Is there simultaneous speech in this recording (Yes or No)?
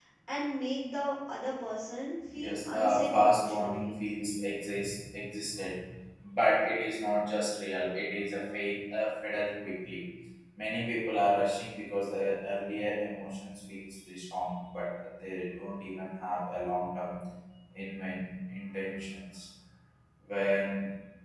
Yes